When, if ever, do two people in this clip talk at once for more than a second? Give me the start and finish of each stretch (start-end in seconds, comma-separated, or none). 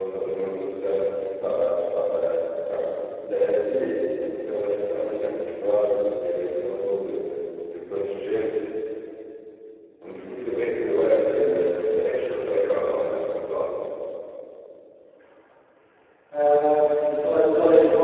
none